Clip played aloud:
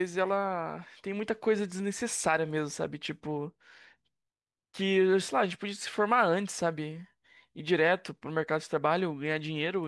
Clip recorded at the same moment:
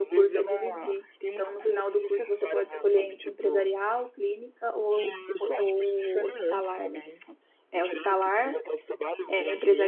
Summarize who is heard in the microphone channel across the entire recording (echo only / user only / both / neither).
both